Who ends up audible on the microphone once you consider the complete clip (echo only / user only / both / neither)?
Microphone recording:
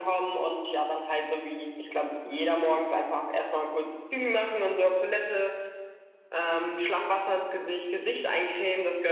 echo only